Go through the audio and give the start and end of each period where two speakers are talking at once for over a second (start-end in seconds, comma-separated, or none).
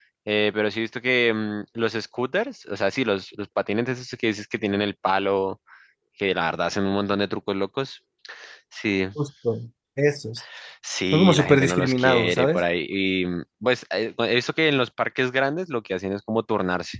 11.1-12.6